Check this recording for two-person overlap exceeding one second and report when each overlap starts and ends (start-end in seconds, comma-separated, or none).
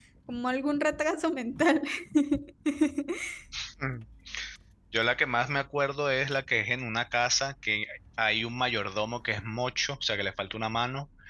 none